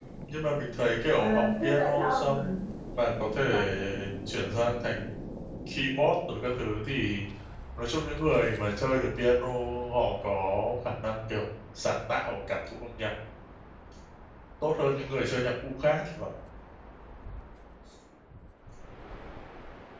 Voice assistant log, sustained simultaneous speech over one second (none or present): present